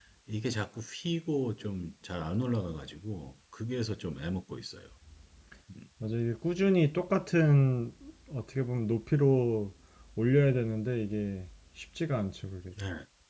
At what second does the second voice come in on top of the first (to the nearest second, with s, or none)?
none